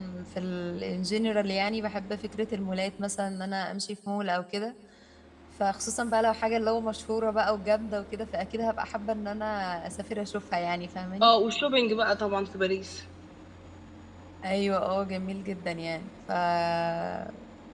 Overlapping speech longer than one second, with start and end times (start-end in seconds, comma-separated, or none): none